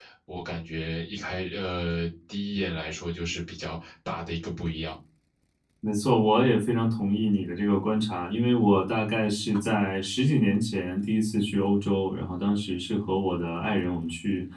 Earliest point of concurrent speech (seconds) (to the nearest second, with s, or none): none